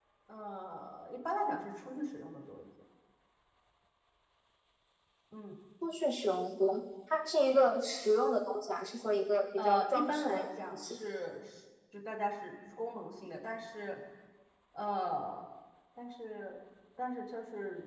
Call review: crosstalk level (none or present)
present